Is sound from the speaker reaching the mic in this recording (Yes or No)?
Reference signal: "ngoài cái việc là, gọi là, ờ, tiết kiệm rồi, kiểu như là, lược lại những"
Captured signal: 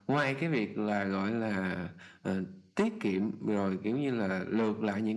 Yes